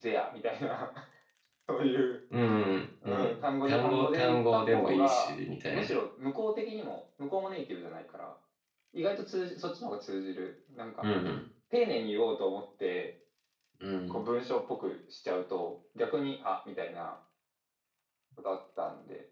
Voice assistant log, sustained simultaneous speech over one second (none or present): present